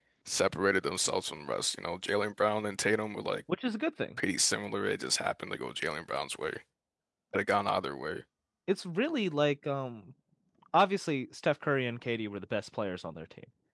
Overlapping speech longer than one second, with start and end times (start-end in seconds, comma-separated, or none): none